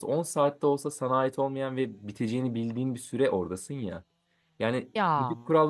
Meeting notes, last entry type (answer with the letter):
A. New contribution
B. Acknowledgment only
B